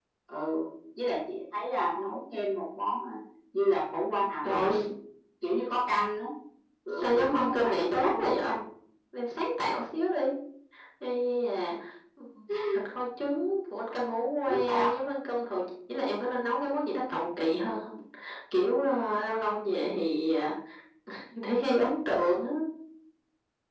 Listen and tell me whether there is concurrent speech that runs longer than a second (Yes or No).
Yes